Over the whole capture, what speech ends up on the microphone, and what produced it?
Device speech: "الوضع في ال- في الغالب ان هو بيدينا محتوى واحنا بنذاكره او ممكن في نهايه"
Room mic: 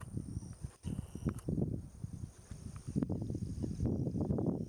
neither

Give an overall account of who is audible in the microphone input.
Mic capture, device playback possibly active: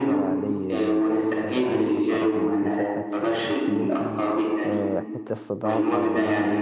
both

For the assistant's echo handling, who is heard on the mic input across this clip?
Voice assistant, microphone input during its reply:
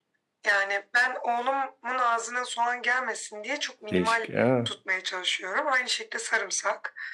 both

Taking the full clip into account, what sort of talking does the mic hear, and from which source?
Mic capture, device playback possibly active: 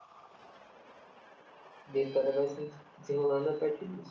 user only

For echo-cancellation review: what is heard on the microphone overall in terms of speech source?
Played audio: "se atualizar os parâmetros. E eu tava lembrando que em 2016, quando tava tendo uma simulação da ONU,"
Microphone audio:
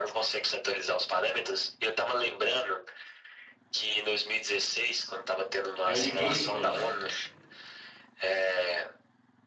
both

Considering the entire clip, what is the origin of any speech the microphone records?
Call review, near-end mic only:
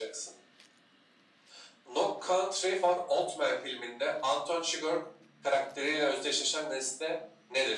echo only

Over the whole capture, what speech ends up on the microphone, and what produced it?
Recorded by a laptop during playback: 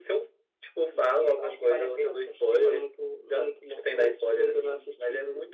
echo only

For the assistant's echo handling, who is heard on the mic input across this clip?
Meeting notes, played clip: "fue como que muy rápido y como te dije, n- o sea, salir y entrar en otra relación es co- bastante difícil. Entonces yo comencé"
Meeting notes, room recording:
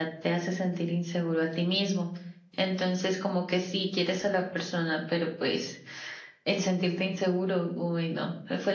user only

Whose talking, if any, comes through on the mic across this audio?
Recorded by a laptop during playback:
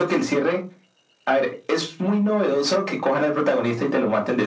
echo only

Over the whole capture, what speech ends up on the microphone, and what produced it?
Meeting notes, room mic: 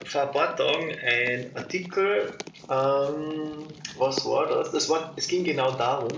user only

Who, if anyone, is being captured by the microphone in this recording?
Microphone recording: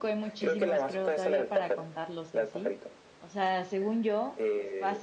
both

